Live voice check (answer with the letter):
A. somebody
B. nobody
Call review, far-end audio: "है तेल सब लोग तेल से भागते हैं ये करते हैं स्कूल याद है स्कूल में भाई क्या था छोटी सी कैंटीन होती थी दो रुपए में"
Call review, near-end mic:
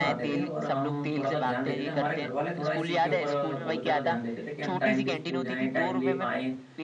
A